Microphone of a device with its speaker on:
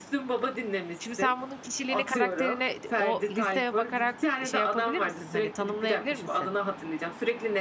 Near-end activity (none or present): present